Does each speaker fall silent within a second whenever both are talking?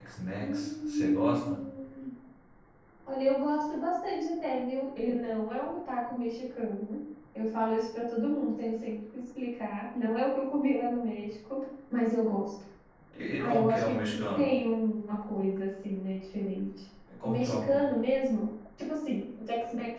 No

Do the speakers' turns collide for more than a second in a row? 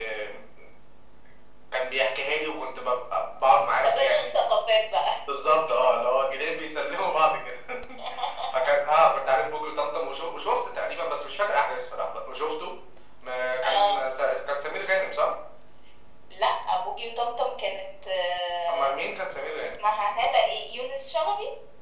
No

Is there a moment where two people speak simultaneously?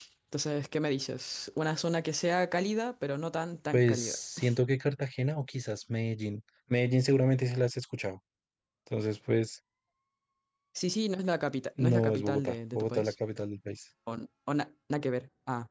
Yes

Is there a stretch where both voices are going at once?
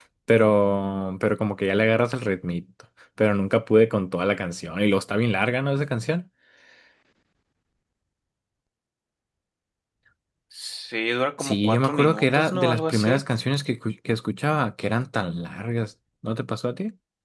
Yes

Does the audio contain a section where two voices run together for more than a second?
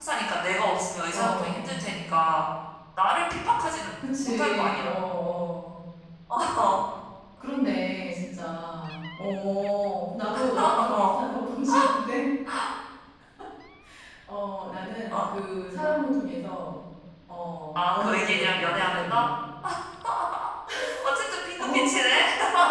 Yes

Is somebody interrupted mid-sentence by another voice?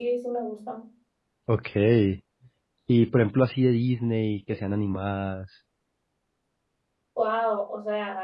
No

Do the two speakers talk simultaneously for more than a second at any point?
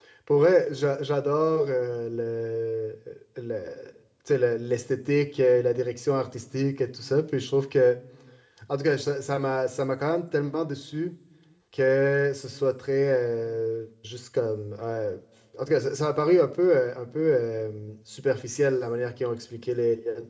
No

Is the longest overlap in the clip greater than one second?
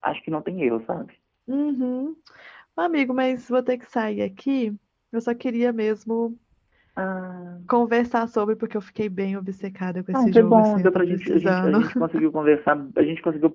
Yes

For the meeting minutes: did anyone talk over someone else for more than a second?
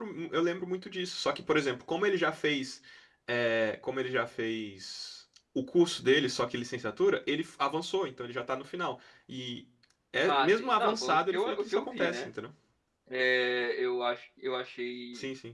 Yes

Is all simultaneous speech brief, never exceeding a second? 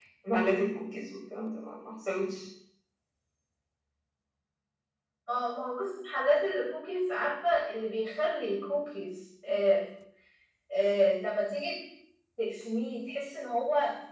Yes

